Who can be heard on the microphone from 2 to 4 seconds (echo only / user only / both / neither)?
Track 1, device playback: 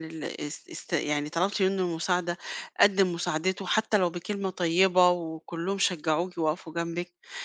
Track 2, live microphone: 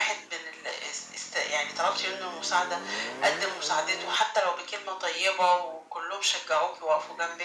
echo only